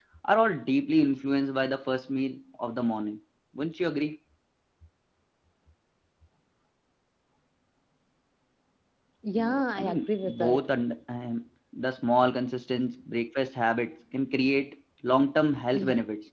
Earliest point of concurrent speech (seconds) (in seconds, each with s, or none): 9.4 s